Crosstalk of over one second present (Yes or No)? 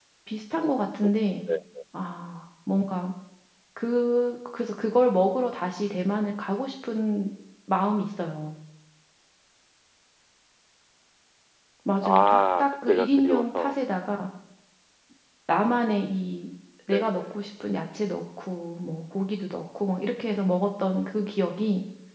Yes